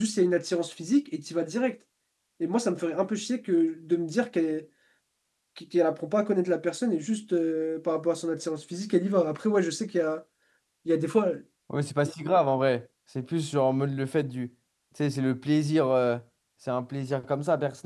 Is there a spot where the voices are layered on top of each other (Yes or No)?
No